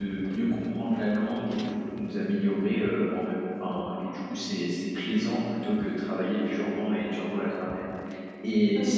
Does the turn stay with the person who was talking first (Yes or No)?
Yes